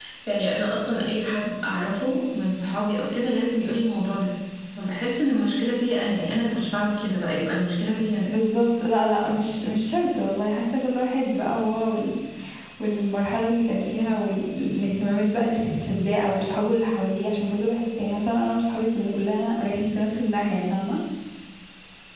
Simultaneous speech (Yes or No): No